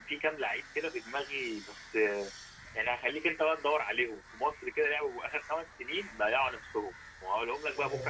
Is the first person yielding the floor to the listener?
No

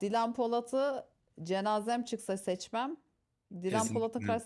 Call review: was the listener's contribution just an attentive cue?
Yes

